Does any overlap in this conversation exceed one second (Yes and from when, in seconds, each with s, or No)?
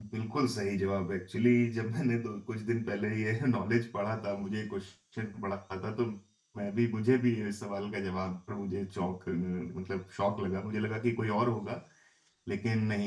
No